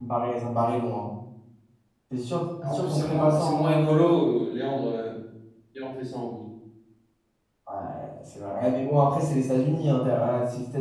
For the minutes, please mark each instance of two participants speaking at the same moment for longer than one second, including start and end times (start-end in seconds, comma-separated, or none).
2.6-4.1